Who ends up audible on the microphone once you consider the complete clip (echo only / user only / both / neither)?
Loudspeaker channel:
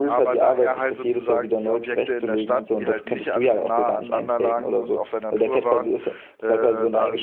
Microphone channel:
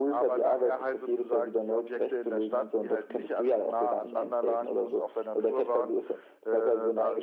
echo only